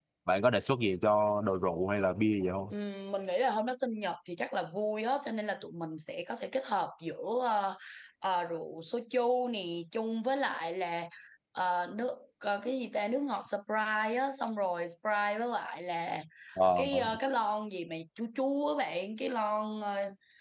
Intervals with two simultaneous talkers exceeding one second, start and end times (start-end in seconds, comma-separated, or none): none